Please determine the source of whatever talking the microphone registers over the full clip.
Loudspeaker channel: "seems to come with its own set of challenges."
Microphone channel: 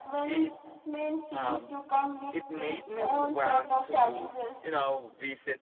both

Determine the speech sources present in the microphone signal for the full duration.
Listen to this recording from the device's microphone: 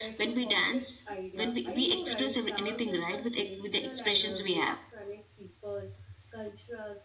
both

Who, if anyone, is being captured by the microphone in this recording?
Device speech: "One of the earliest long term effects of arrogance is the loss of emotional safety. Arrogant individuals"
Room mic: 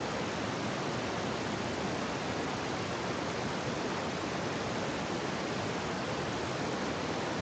neither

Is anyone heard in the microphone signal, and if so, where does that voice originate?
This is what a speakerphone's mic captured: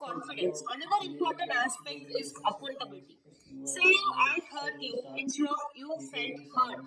both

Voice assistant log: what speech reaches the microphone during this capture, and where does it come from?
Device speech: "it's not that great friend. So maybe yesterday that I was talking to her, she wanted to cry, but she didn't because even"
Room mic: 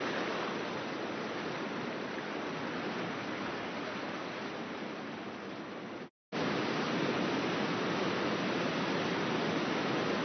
neither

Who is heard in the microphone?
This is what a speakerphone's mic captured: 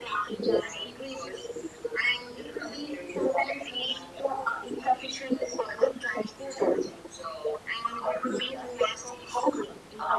echo only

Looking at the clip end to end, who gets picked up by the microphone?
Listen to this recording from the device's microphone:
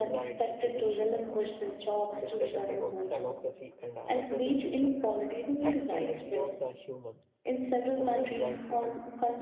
both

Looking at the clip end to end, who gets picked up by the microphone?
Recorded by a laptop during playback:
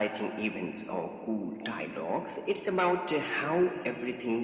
echo only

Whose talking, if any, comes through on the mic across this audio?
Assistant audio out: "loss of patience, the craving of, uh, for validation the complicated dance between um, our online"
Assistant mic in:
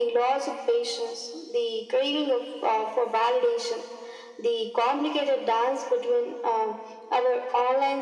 echo only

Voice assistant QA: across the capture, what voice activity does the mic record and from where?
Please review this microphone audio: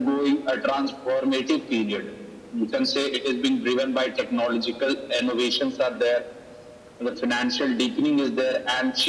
echo only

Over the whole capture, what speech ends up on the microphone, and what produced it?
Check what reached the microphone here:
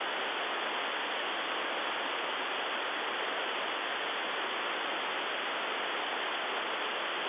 neither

